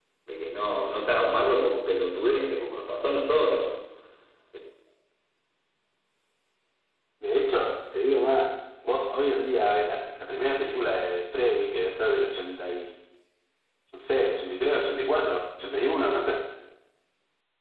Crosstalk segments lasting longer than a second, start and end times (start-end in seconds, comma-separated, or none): none